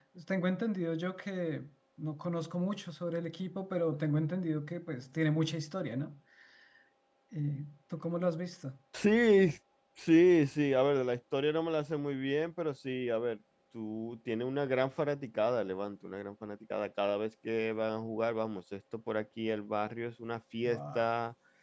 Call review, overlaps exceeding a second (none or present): none